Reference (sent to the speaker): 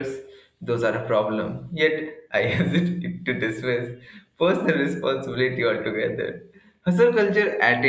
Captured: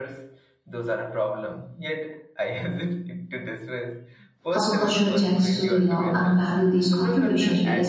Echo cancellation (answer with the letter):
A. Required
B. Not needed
A